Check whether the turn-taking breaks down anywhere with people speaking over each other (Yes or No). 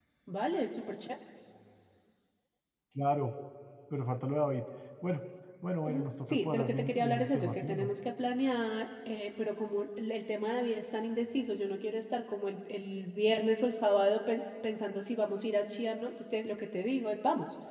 Yes